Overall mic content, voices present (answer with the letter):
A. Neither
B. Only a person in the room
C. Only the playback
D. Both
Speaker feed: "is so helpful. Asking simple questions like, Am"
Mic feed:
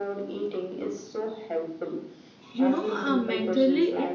D